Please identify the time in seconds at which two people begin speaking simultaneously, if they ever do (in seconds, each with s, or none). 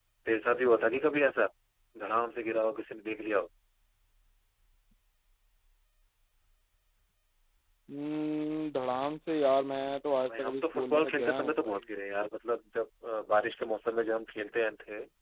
10.3 s